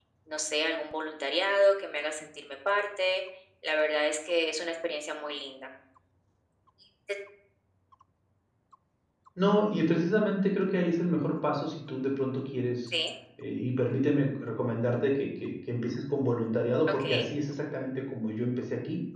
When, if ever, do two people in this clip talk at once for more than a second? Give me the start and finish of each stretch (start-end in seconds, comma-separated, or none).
none